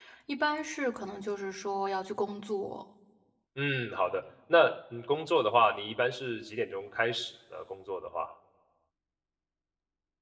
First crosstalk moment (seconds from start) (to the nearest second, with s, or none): none